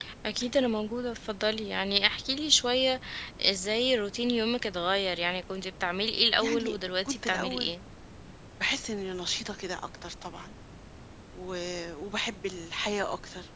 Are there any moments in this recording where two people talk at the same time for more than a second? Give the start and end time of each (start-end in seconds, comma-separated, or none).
6.4-7.7